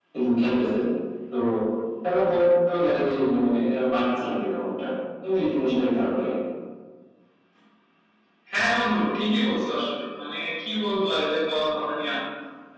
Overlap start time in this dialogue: none

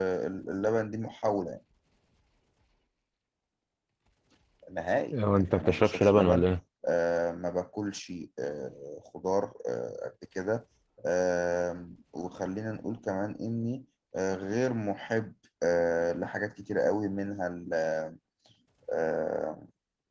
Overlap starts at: 5.1 s

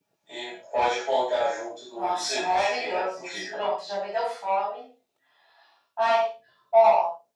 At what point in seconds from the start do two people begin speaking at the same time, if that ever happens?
2.0 s

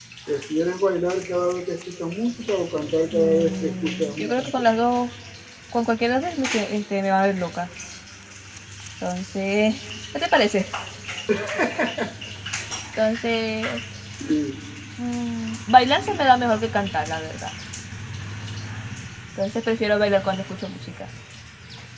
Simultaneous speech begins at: 3.1 s

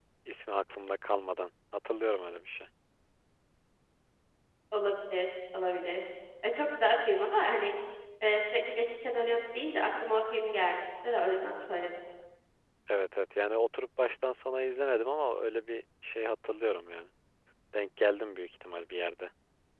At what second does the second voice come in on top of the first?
none

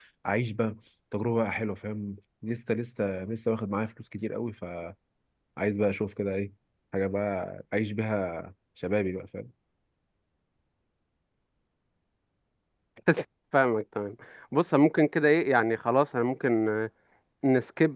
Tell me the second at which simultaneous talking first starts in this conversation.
none

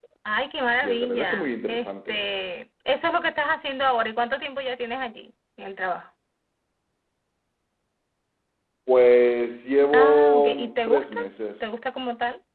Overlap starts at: 0.8 s

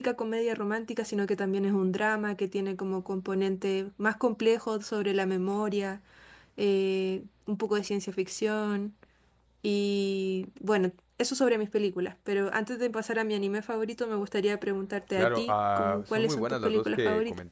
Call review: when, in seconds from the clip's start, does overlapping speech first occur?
15.1 s

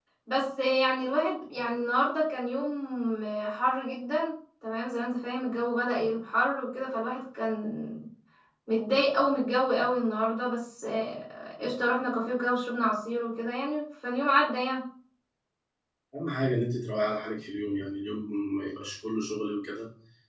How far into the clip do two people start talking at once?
none

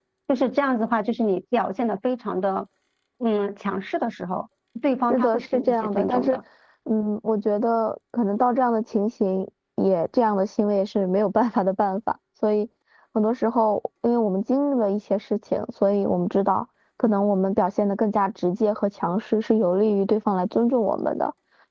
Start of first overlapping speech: 5.1 s

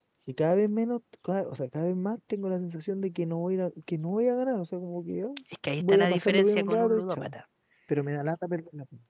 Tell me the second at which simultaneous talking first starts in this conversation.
5.8 s

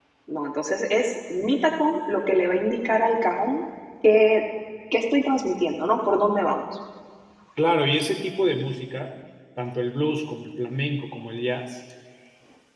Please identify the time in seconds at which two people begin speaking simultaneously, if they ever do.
none

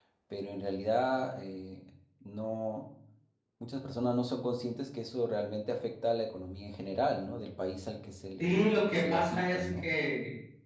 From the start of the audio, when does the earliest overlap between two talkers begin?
8.4 s

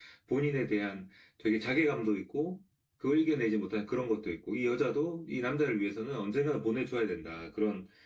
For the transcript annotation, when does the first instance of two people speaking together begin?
none

